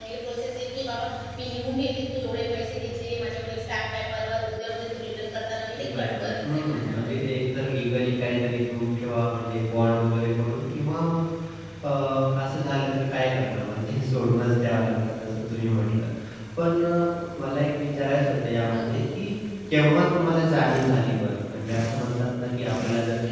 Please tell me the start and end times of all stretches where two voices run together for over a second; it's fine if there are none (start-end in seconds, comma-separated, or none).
5.8-7.2